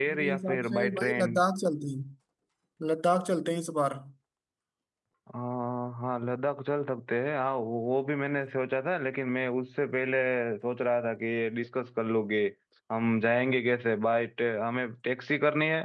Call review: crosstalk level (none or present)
present